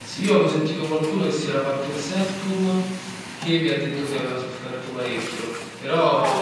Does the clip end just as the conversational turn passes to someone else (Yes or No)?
No